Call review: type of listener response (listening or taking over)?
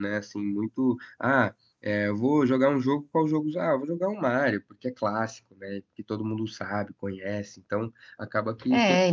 taking over